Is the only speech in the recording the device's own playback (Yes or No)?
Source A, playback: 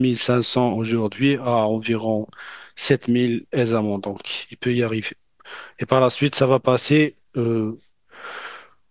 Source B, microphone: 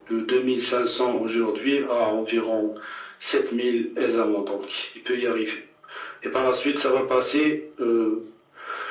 Yes